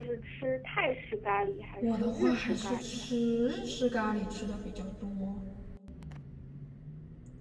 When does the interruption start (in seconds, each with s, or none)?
1.8 s